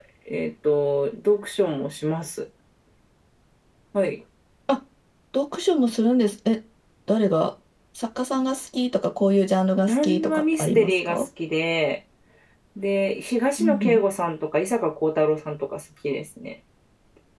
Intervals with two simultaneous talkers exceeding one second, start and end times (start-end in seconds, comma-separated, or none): 9.9-11.2